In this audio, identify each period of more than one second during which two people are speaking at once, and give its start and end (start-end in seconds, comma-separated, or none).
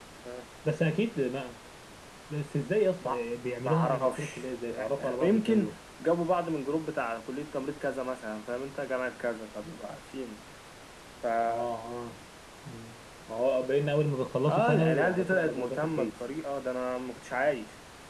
3.6-5.7, 14.5-16.2